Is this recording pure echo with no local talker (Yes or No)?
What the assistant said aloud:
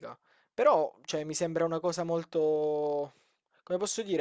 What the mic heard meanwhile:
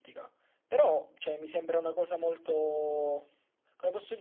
Yes